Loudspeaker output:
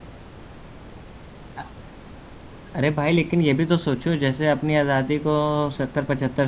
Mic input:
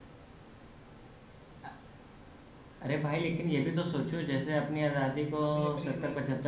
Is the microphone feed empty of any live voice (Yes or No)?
No